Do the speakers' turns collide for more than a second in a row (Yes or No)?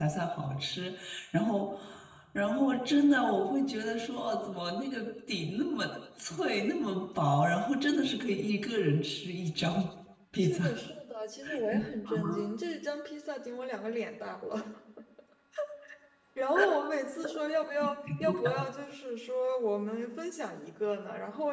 No